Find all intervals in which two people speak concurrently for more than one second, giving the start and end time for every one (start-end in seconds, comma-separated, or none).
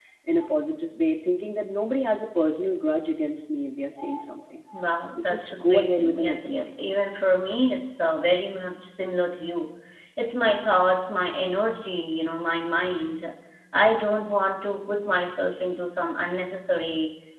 5.2-6.8